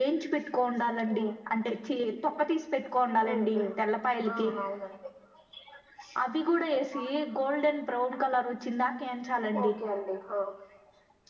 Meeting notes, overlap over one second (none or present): none